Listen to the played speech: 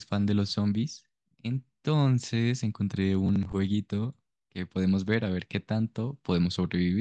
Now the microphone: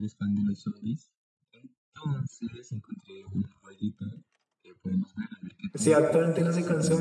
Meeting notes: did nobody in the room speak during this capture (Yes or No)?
No